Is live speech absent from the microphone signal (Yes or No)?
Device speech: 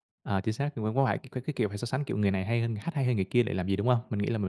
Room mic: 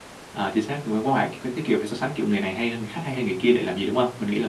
Yes